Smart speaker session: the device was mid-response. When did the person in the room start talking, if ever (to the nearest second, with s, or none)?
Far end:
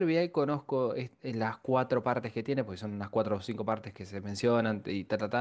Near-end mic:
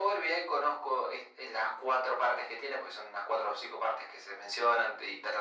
none